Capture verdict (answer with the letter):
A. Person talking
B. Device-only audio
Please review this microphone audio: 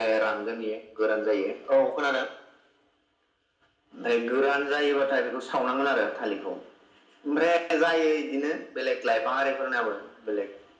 B